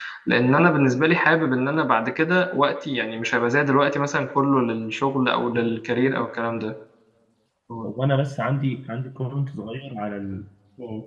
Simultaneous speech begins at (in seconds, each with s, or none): none